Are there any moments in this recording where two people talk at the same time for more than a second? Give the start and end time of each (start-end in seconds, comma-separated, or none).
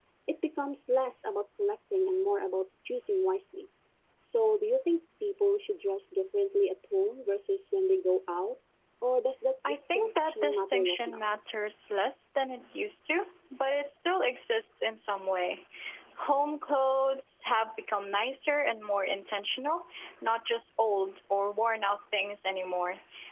9.7-11.2